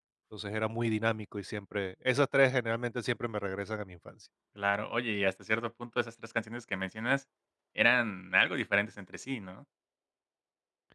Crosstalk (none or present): none